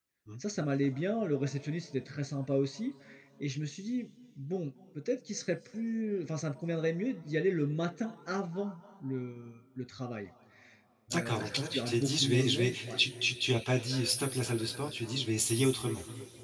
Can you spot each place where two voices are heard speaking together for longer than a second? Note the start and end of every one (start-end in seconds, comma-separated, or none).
11.1-12.9